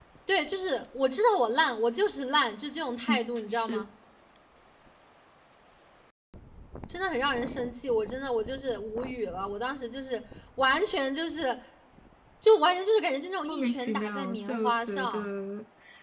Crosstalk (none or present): present